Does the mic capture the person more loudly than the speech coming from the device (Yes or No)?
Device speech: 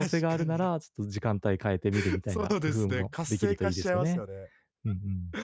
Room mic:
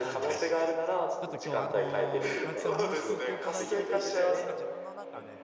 No